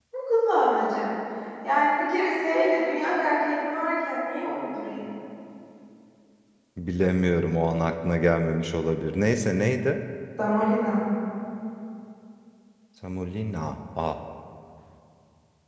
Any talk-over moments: No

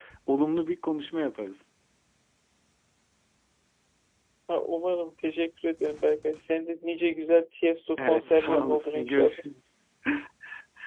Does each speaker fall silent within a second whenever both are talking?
No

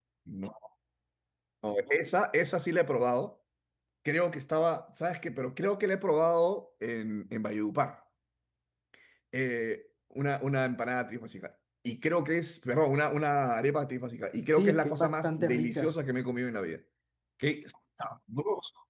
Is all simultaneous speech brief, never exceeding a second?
No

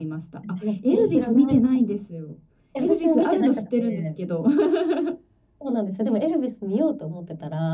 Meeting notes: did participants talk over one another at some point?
Yes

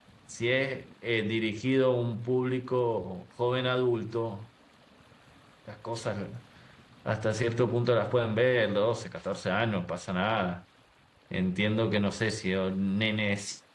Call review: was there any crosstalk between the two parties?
No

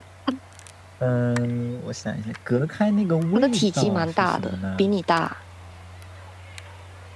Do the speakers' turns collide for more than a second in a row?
Yes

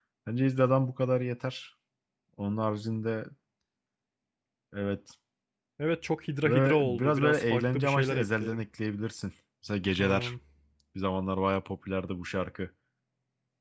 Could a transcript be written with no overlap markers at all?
No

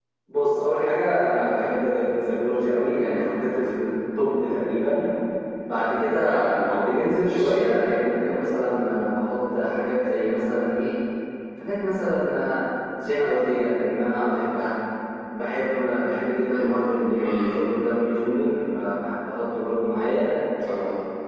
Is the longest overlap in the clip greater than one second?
No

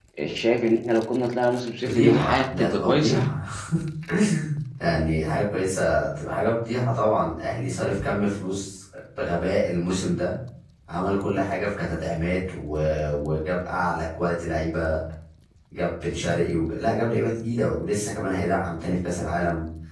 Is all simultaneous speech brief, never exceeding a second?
No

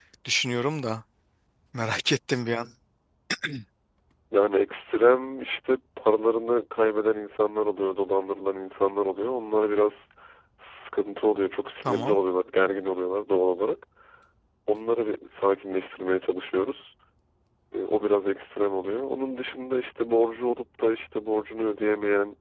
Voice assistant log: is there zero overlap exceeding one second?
Yes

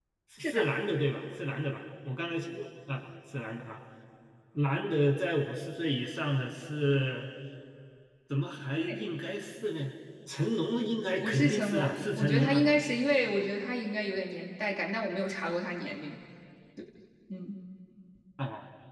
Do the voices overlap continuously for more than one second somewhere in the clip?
Yes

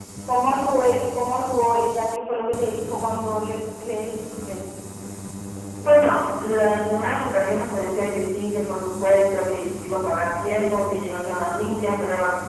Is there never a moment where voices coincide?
Yes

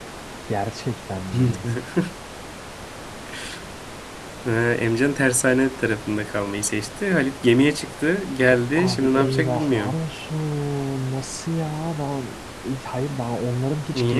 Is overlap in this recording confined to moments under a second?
No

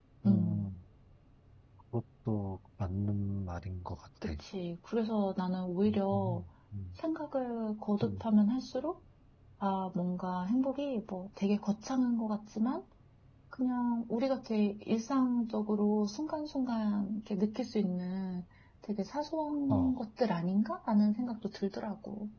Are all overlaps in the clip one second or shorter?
Yes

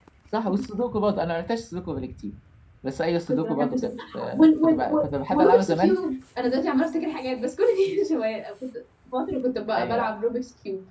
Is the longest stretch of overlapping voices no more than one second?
No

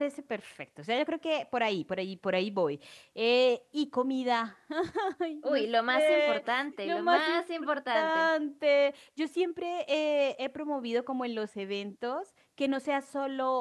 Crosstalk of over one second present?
Yes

